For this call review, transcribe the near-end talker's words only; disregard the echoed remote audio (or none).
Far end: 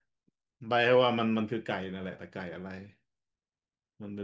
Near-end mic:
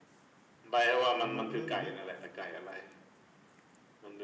มันเล่นเล่น